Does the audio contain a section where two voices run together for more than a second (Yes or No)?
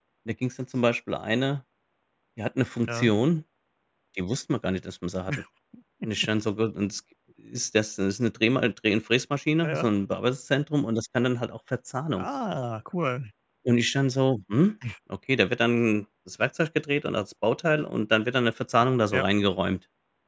No